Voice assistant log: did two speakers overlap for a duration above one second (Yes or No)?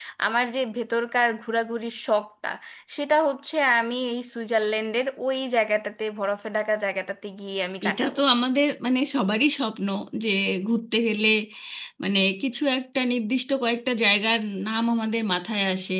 No